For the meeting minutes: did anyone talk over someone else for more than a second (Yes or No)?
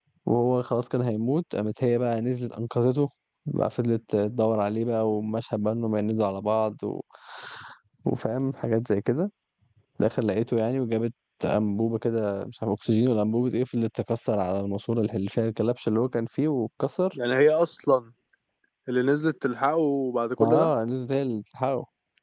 No